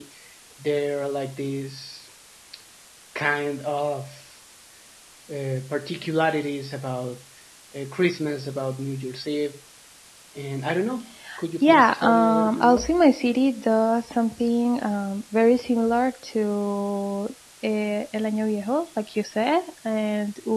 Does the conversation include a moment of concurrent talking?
Yes, from 11.6 s

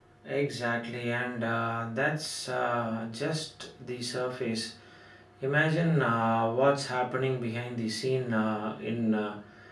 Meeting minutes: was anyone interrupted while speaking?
No

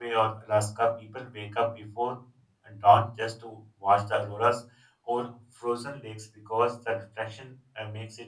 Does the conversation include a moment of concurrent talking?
No

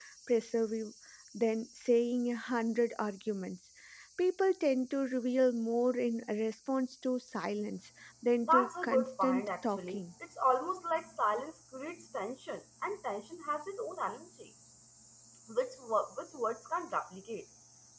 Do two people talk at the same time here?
Yes, from 8.4 s

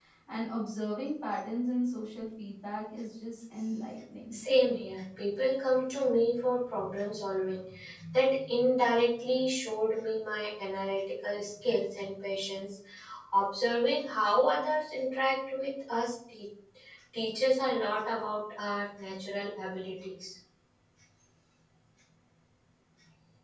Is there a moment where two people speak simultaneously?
No

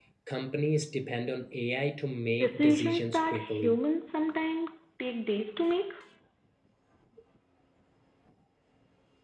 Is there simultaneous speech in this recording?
Yes, from 2.4 s

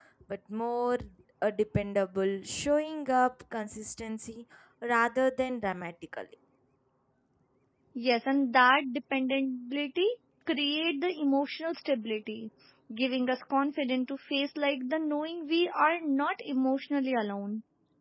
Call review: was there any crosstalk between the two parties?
No

